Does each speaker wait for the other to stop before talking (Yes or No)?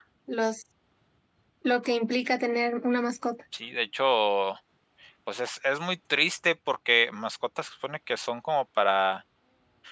Yes